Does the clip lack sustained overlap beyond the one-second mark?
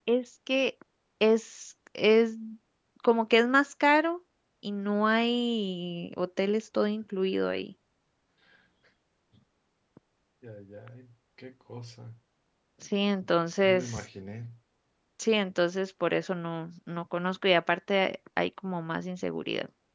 Yes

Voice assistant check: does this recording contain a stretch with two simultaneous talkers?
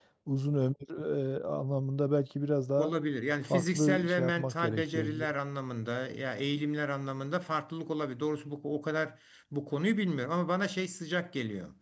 Yes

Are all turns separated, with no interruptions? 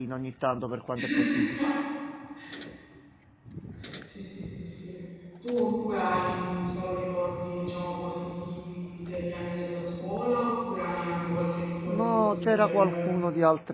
No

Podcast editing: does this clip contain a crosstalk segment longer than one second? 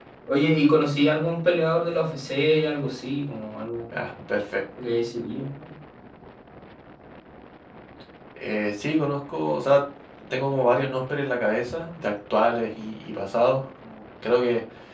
No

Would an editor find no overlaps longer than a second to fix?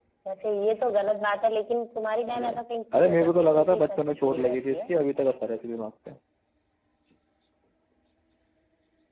No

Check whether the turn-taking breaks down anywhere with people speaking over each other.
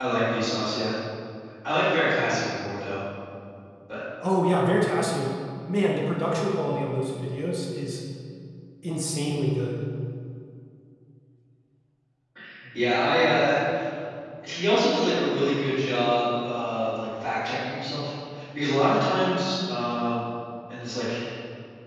No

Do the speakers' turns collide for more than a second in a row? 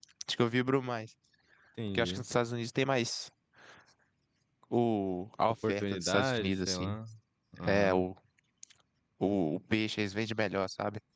Yes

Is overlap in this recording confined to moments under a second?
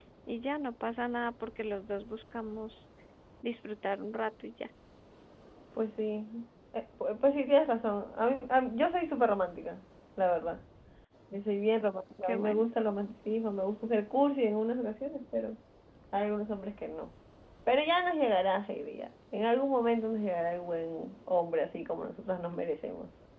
Yes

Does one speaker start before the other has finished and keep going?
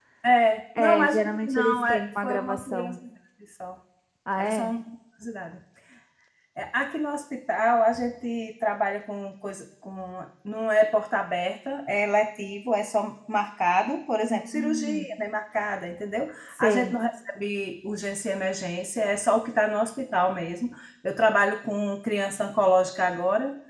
Yes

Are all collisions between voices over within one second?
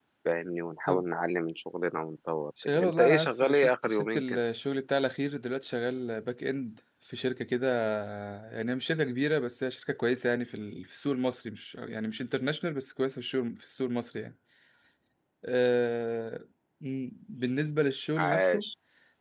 No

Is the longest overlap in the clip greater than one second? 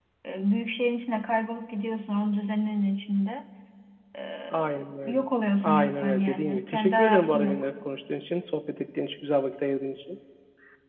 Yes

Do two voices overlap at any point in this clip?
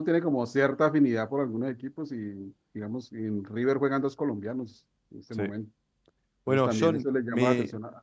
Yes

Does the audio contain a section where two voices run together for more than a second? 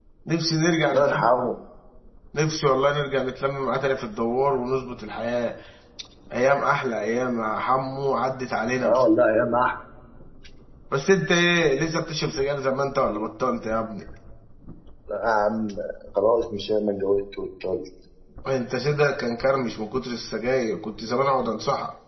No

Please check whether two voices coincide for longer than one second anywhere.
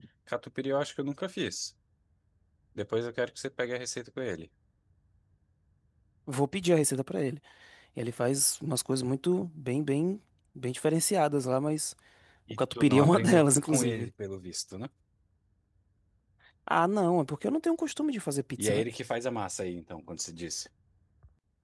Yes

